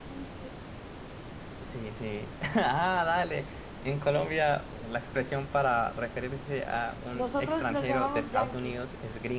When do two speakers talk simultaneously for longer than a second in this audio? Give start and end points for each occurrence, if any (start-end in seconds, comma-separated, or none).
7.1-8.8